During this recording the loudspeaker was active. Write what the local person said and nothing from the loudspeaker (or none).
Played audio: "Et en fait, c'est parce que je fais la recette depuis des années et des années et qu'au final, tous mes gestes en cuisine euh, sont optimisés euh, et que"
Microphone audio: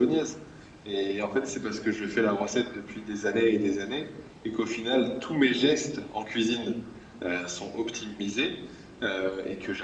none